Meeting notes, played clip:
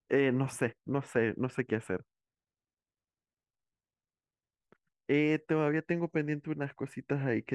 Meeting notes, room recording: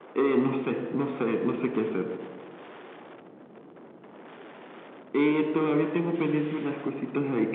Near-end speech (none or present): none